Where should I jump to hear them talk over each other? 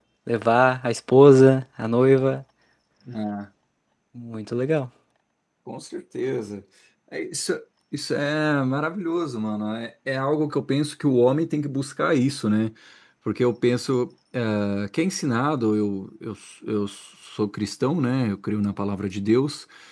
none

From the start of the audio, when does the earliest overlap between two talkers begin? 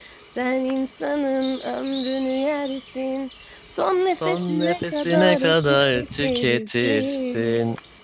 4 s

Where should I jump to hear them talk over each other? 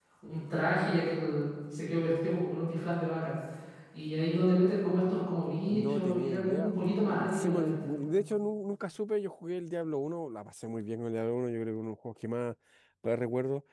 6 s

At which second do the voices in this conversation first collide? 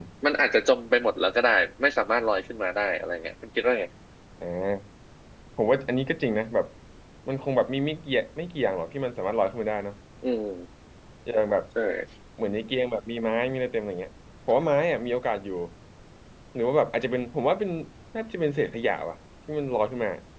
none

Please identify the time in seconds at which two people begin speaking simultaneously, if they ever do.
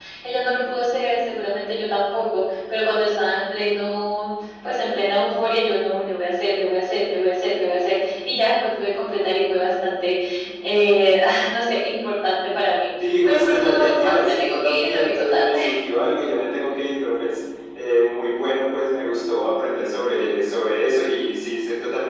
13 s

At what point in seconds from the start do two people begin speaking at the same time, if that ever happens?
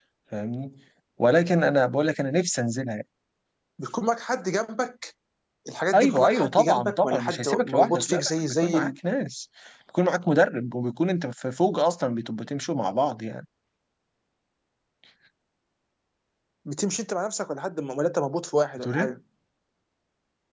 6 s

